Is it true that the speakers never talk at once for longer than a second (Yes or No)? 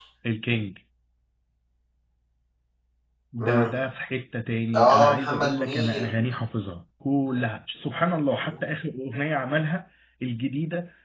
No